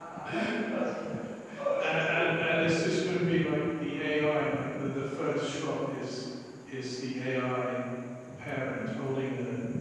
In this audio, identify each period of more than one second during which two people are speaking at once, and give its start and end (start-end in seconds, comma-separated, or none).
1.8-3.2